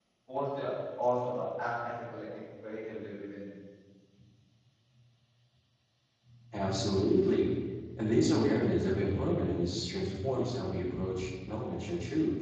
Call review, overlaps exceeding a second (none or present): none